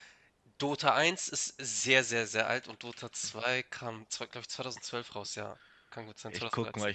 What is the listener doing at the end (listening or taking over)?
taking over